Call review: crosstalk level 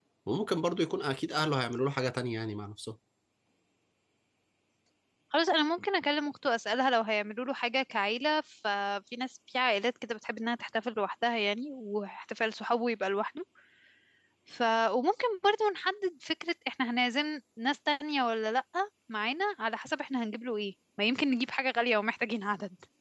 none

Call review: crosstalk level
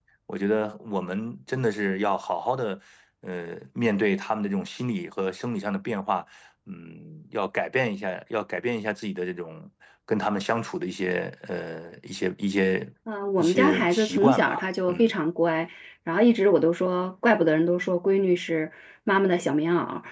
present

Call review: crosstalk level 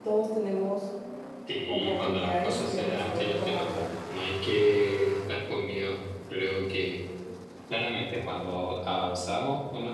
present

